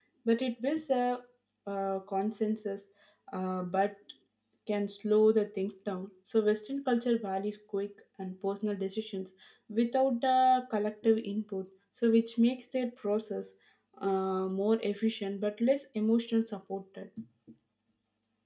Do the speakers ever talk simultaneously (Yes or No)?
No